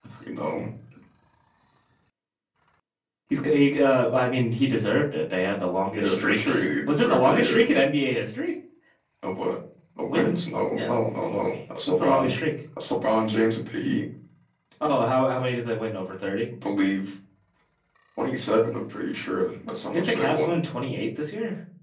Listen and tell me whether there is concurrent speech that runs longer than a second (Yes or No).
Yes